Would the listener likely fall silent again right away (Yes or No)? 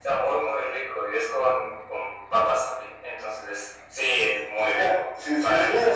No